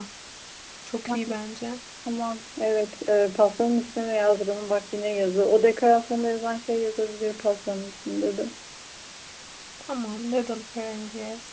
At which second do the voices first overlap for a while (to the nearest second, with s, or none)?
none